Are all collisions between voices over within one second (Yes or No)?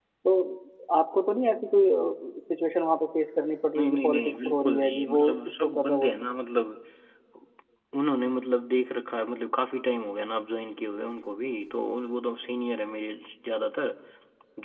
No